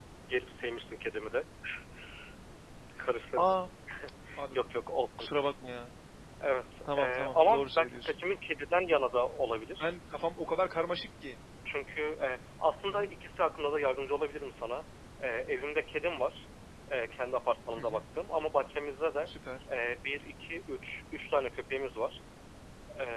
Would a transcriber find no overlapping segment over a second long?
No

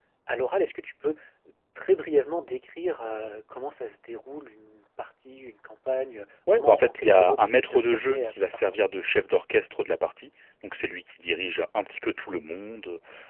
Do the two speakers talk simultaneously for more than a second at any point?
Yes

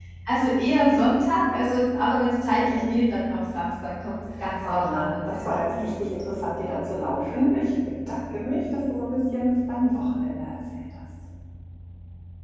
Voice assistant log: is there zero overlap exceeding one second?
No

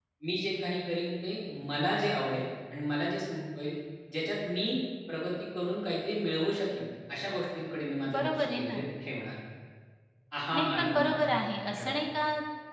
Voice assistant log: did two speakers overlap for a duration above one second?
Yes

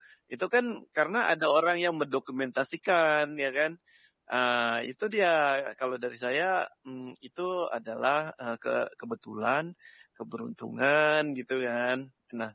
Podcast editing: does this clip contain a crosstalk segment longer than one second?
No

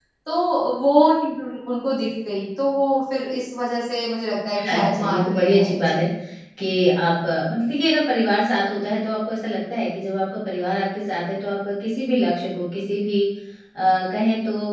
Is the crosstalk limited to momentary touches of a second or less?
No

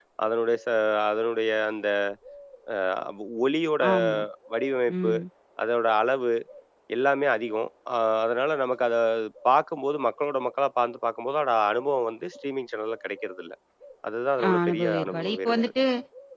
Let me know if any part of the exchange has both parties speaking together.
Yes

